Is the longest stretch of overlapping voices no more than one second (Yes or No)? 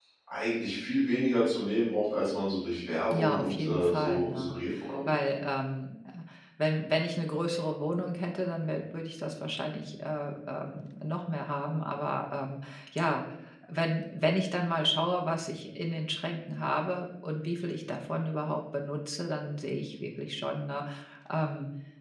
No